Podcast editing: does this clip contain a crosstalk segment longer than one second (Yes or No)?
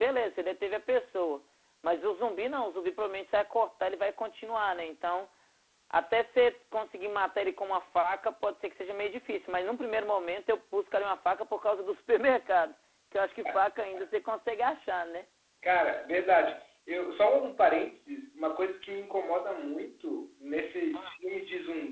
No